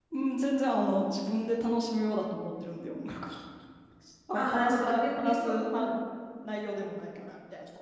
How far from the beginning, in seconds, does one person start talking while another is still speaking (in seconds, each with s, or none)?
4.3 s